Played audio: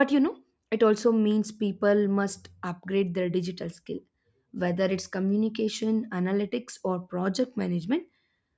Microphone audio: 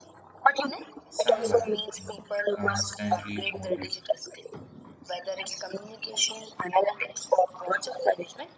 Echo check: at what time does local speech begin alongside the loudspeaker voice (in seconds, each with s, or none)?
1.1 s